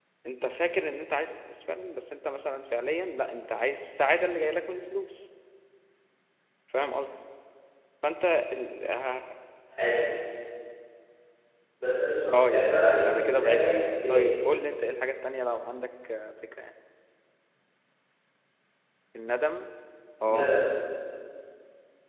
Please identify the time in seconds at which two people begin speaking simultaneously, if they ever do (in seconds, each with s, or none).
12.3 s